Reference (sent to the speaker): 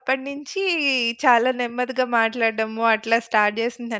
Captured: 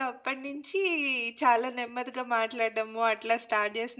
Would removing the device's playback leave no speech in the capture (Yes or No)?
Yes